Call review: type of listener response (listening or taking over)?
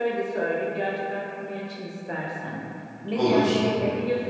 listening